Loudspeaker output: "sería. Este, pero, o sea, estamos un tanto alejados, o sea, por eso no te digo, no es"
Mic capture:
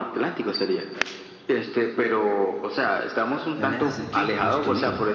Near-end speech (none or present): present